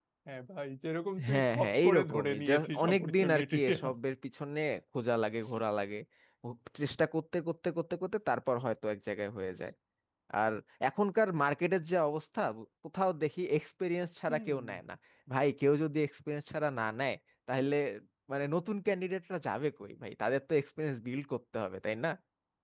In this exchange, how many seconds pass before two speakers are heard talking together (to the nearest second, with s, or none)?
1 s